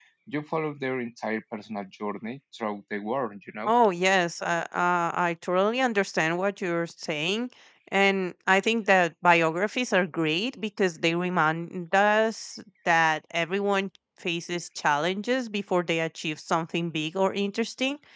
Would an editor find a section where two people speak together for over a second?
No

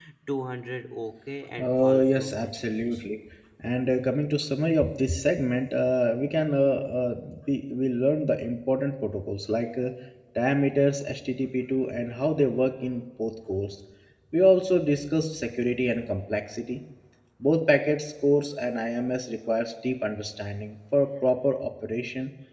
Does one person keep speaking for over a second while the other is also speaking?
Yes, from 1.6 s

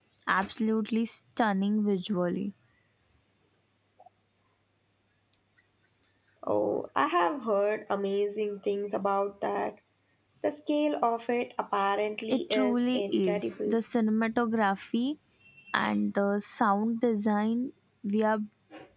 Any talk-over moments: Yes, from 12.3 s

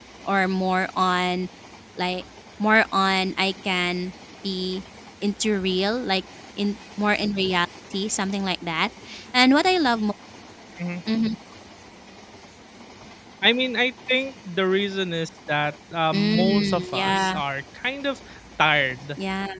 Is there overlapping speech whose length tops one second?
Yes, from 16.1 s

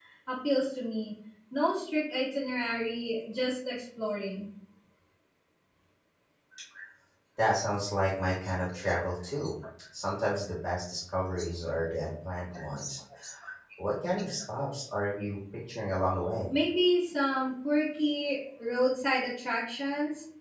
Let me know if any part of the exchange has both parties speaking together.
No

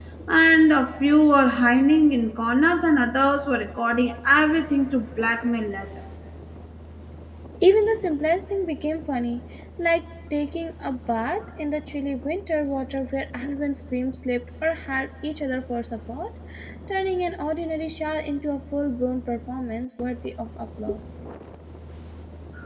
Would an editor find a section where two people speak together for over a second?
No

